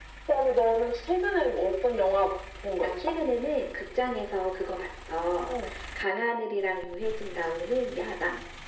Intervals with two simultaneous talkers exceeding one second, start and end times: none

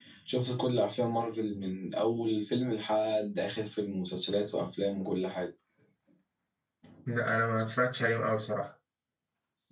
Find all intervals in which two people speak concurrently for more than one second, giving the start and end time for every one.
none

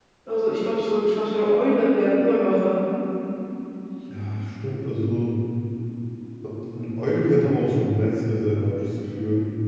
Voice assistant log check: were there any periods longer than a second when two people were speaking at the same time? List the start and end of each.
none

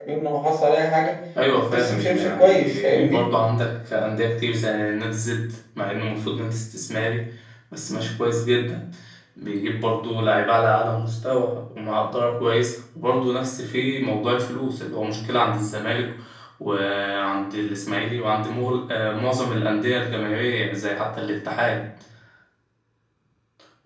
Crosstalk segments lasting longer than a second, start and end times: 1.7-3.3

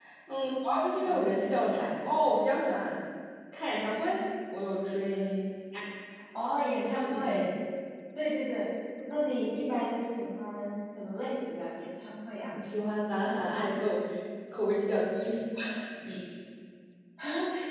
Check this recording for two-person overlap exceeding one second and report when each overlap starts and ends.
none

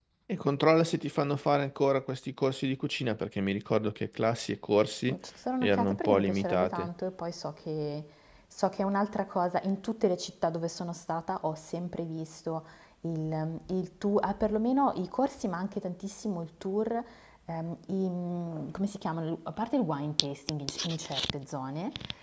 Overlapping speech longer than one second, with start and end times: 5.6-6.9

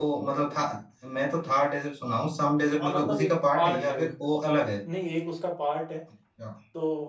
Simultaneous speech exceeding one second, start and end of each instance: 2.8-4.1

